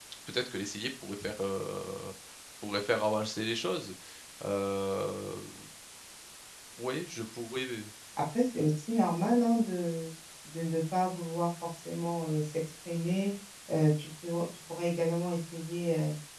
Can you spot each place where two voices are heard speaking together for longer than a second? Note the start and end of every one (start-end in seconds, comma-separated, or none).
none